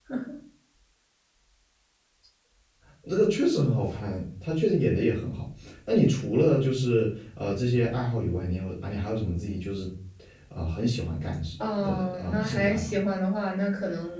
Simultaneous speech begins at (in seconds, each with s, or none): 11.6 s